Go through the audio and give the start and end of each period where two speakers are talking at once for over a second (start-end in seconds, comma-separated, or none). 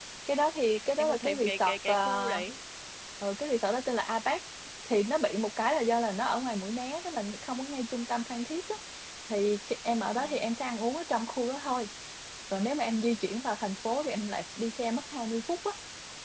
1.0-2.4